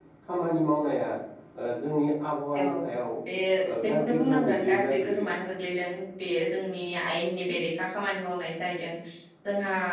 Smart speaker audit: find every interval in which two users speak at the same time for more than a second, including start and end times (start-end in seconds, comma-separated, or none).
3.8-5.3